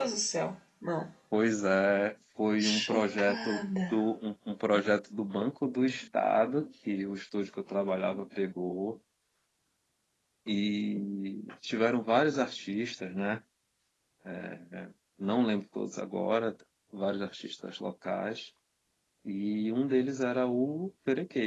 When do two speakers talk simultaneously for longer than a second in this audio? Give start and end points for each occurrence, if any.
2.7-3.9

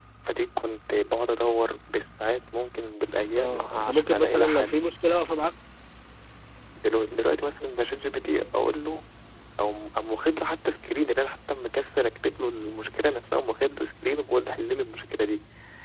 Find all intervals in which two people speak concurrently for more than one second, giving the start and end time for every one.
3.4-4.8

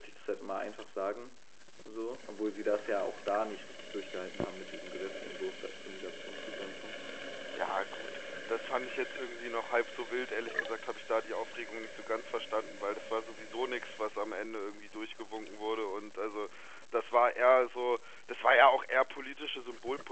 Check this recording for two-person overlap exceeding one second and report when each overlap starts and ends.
none

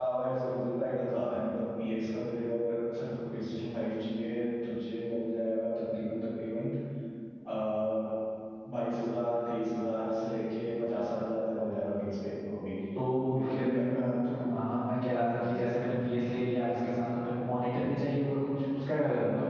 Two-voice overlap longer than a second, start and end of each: none

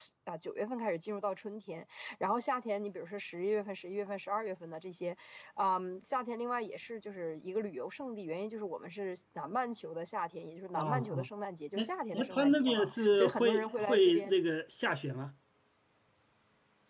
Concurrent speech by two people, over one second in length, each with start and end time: 11.8-14.4

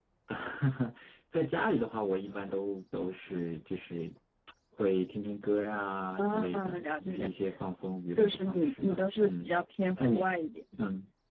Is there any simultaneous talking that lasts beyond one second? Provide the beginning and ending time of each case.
6.2-7.5, 8.2-9.5

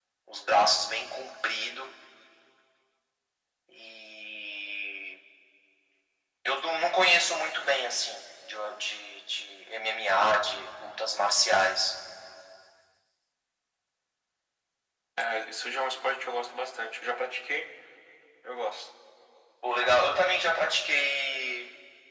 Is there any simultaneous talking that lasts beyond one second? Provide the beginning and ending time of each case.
none

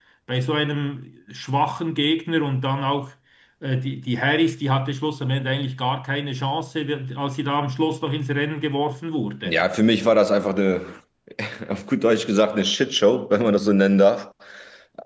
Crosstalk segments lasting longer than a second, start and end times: none

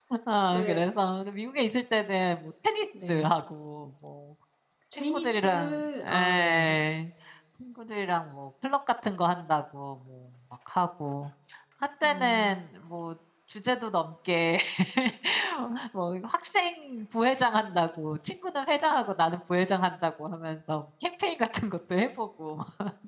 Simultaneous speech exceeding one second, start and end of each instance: 4.9-6.8

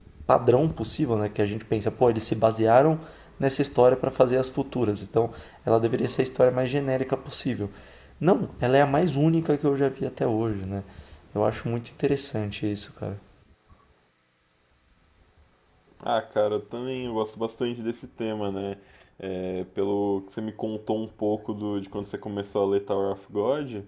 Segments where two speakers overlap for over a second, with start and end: none

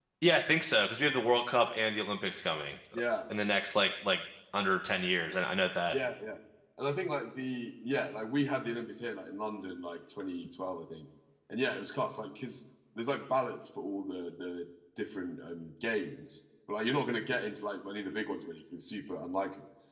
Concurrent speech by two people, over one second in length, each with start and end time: none

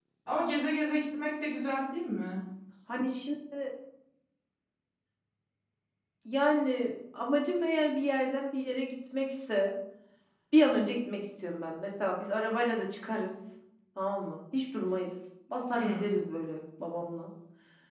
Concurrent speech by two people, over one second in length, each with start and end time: none

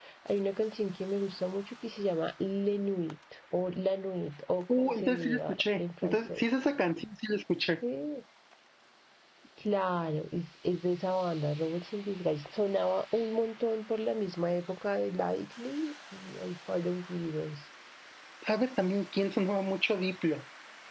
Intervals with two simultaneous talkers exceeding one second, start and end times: 4.7-6.4

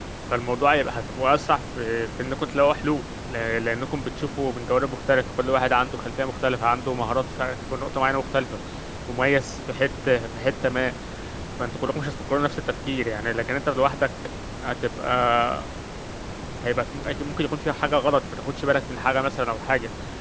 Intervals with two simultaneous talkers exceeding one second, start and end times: none

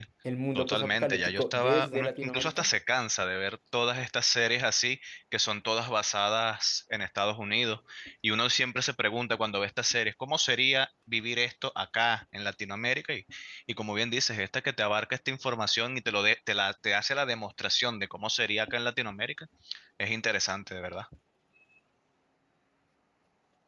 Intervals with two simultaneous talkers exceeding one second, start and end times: 0.6-2.7

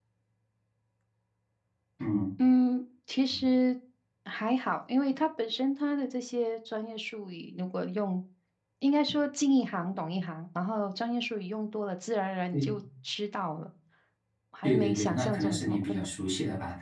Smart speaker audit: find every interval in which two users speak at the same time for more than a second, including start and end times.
14.6-16.1

